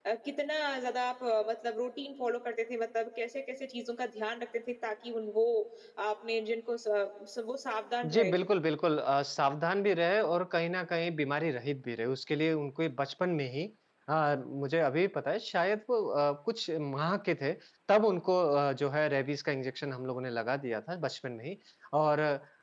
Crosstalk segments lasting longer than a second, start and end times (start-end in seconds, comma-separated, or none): none